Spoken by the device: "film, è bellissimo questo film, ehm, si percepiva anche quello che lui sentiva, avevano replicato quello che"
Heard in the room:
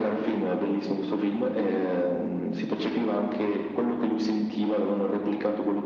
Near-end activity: none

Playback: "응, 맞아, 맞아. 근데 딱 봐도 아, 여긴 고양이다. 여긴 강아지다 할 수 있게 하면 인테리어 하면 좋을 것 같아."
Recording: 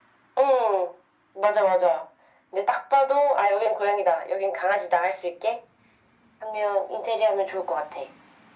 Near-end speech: none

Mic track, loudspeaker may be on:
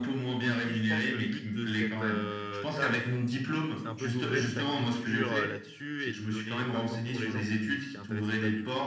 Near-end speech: present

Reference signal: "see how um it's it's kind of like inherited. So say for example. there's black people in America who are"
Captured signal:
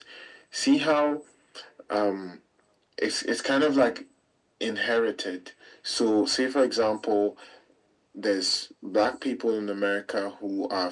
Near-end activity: none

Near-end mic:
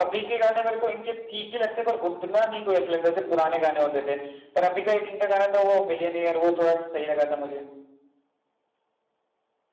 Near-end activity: none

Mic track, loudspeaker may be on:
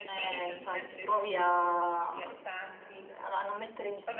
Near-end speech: present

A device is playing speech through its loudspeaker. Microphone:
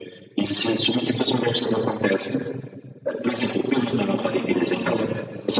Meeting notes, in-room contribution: present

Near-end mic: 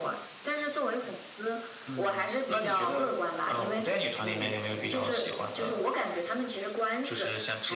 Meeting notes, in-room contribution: none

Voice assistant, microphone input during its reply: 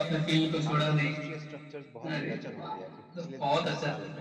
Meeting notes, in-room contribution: present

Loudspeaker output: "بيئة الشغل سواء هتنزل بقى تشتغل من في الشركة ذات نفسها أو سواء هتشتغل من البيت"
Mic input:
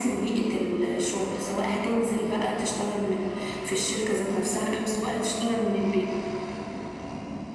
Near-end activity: none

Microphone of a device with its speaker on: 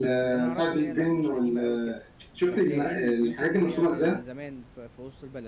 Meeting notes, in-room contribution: present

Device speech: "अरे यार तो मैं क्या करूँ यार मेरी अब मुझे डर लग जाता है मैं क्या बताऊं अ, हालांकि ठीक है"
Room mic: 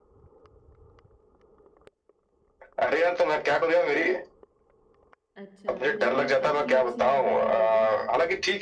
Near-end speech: present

